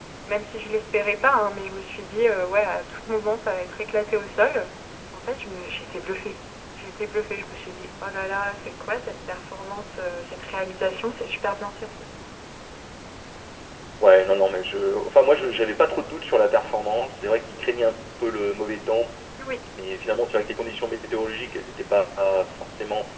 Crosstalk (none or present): none